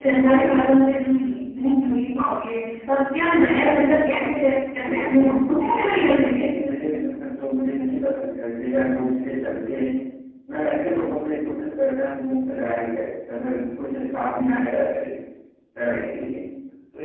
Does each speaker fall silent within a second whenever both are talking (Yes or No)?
No